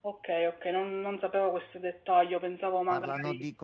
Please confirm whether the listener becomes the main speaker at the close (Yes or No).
Yes